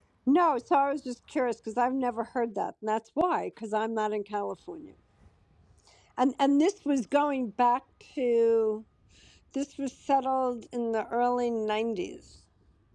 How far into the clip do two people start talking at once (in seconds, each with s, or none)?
none